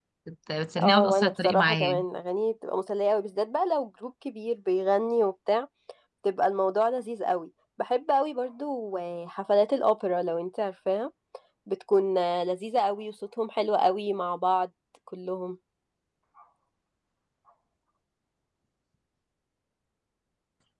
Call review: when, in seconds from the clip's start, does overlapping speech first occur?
0.8 s

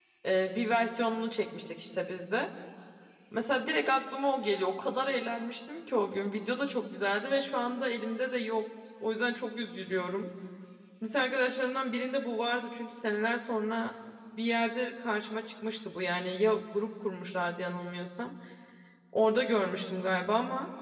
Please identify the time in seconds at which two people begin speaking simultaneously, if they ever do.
none

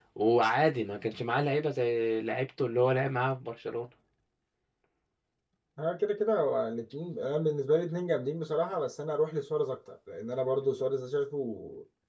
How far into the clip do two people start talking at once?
none

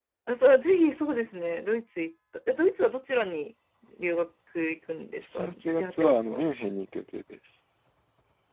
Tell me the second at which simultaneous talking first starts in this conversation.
5.2 s

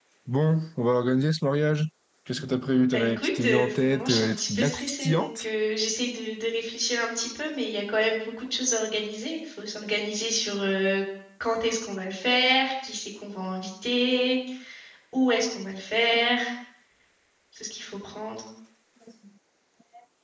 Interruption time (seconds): 2.8 s

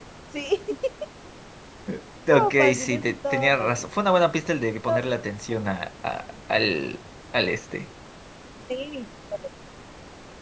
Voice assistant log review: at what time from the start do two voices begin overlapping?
2.3 s

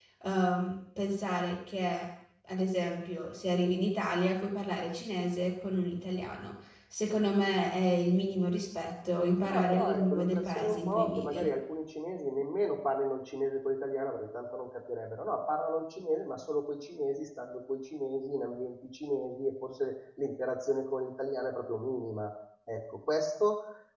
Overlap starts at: 9.4 s

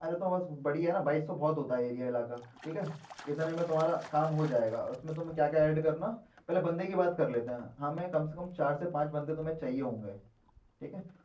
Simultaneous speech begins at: none

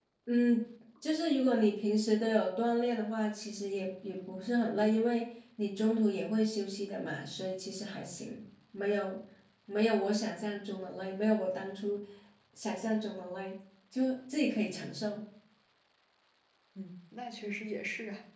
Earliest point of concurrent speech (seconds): none

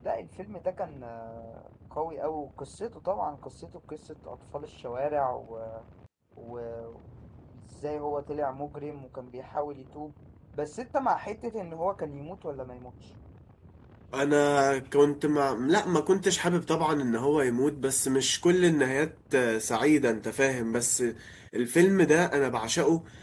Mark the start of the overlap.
none

